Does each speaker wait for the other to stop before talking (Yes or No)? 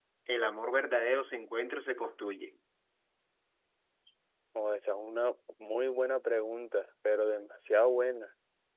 Yes